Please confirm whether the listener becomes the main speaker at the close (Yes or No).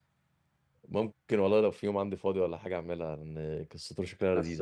No